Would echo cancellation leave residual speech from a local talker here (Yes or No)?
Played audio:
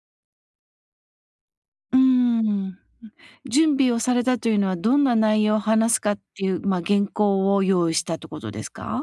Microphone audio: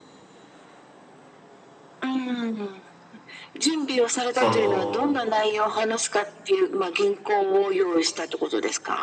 Yes